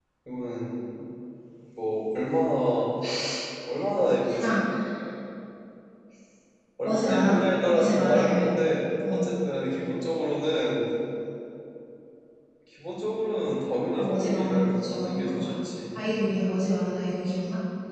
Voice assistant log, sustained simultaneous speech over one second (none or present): present